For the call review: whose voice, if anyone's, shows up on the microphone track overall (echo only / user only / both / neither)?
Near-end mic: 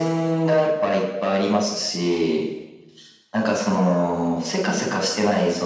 echo only